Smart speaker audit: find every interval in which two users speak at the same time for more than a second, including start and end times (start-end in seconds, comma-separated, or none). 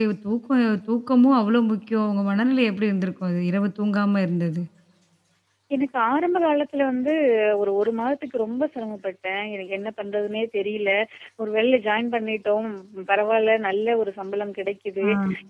none